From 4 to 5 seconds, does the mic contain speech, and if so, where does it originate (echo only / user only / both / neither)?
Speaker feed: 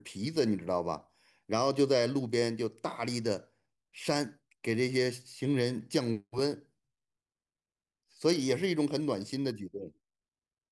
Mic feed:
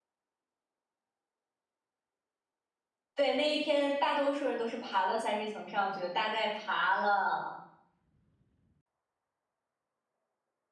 user only